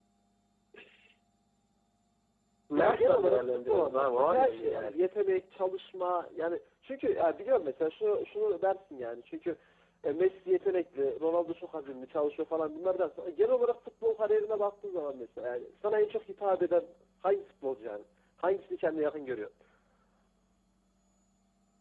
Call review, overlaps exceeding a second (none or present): present